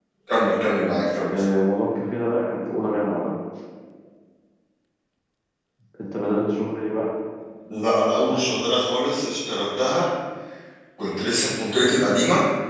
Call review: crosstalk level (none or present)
none